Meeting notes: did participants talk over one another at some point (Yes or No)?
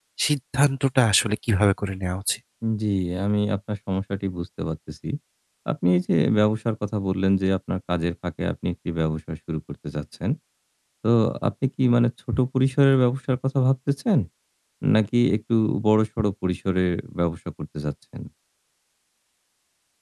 No